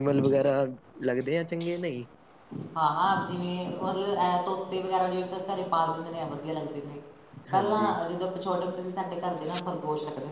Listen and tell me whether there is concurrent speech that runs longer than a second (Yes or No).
No